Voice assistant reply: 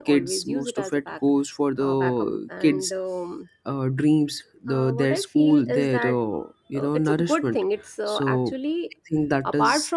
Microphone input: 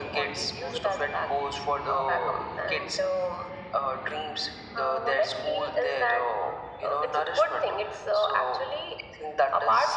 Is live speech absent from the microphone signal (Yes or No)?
Yes